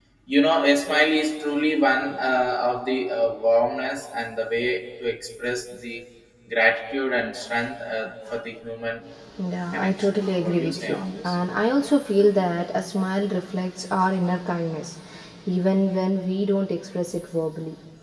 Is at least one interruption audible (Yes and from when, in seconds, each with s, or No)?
Yes, from 9.7 s